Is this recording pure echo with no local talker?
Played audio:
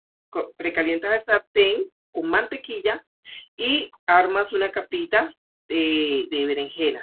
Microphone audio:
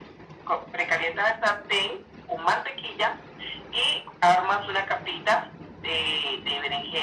Yes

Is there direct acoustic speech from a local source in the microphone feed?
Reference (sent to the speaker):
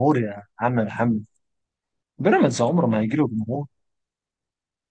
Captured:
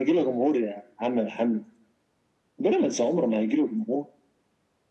No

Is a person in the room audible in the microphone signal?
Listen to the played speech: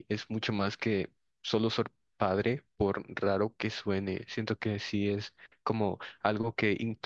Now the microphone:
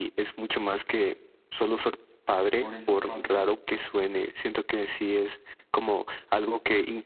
Yes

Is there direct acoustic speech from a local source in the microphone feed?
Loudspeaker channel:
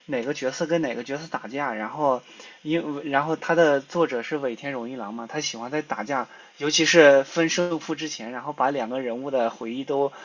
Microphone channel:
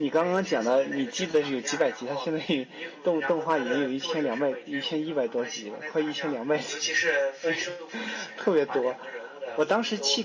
Yes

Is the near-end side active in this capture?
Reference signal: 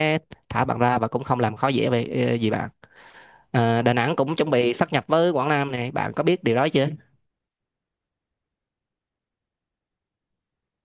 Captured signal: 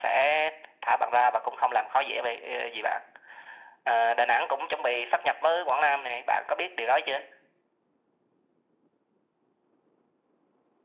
No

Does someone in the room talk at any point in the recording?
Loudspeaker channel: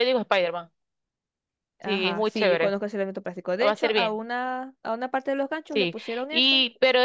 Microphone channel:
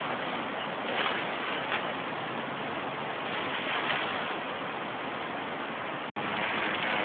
No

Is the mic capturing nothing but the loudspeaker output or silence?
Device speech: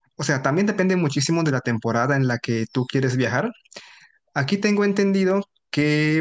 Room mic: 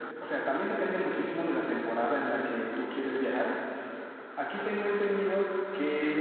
Yes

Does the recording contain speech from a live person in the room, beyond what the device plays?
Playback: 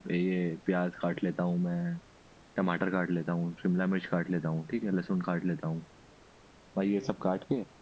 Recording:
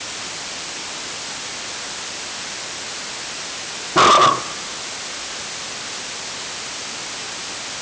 Yes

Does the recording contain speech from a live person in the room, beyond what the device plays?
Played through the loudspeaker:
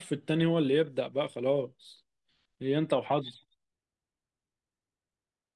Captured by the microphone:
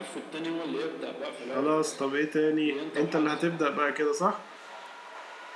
Yes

